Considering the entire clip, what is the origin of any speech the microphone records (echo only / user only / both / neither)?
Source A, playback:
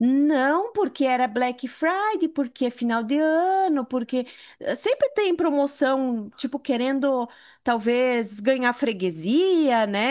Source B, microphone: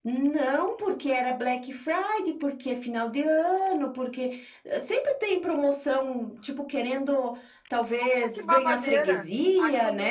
both